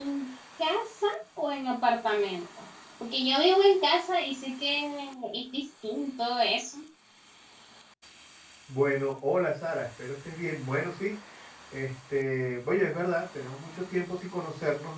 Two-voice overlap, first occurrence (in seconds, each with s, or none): none